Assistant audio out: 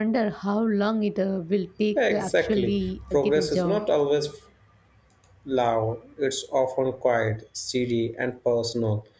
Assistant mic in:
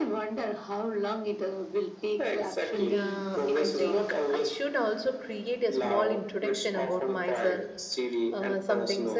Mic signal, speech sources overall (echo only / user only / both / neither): both